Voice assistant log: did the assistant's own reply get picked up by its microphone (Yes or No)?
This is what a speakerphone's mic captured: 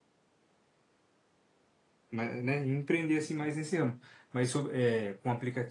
No